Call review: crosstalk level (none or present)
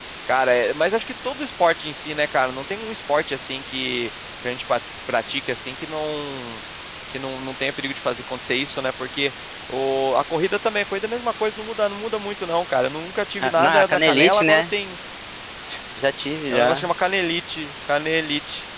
present